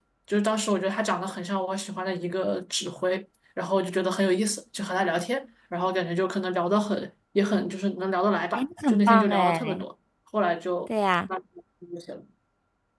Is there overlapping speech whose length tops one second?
Yes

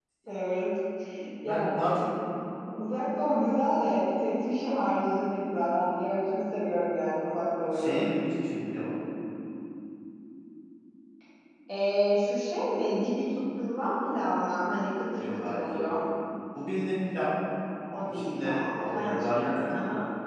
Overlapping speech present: Yes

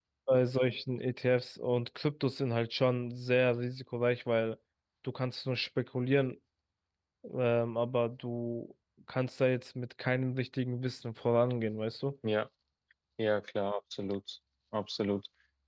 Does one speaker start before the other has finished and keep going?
No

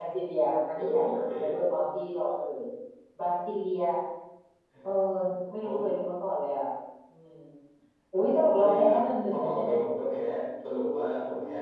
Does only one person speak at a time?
No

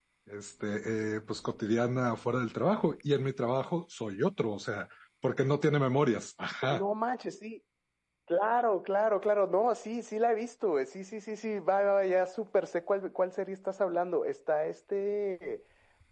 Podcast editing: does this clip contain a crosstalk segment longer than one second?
No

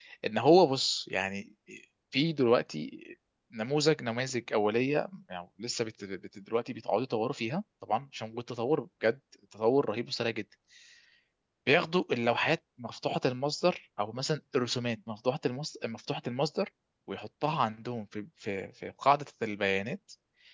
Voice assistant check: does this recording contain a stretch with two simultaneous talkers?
No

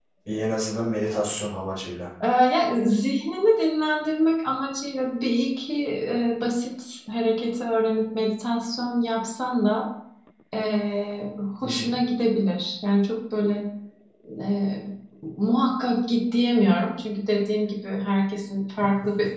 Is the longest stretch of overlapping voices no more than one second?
Yes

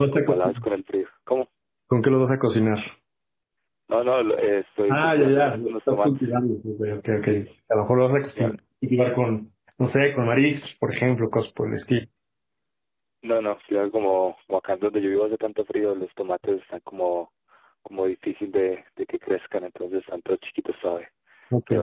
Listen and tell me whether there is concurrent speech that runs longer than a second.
Yes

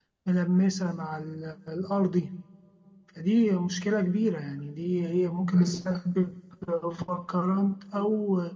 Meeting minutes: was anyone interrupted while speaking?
No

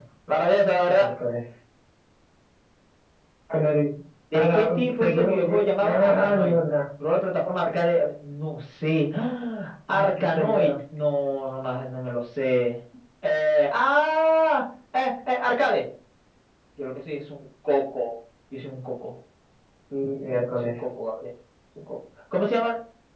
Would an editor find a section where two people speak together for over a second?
Yes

